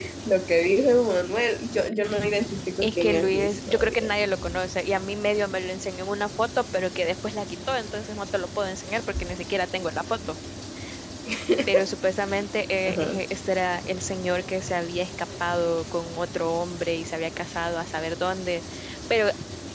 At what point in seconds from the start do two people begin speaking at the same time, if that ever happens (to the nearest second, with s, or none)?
3 s